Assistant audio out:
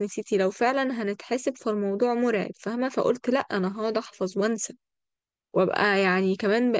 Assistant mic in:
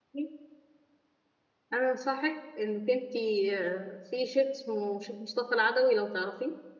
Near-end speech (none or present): present